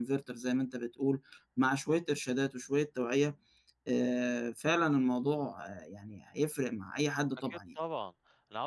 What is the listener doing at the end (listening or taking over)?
taking over